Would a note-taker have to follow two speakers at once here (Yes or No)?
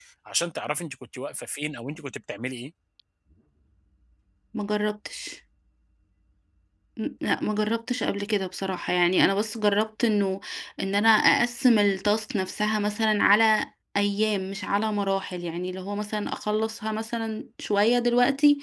No